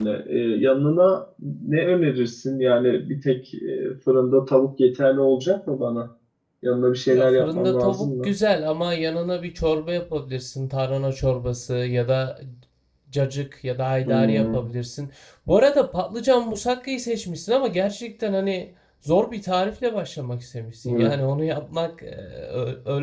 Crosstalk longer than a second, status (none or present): present